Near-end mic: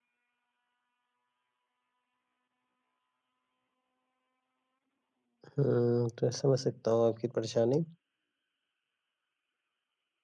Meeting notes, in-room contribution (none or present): present